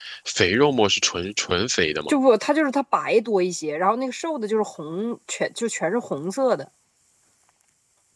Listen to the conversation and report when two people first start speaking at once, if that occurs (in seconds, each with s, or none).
none